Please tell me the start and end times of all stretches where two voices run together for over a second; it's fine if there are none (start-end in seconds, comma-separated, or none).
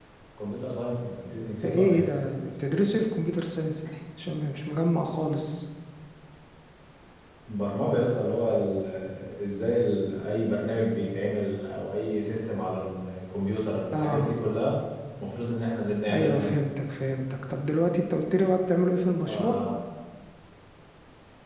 none